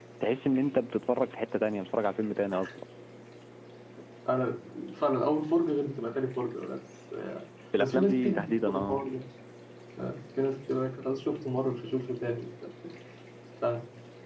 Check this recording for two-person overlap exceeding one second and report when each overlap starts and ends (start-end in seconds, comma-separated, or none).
7.8-9.0